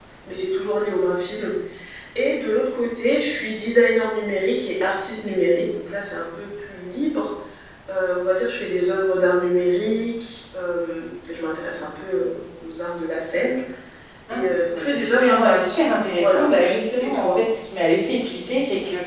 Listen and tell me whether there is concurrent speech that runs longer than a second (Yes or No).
Yes